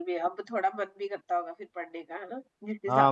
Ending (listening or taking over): taking over